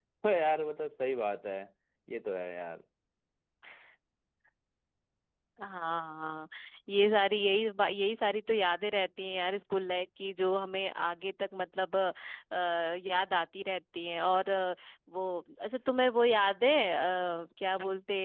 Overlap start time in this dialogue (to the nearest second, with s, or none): none